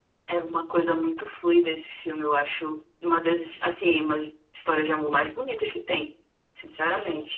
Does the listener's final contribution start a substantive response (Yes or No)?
Yes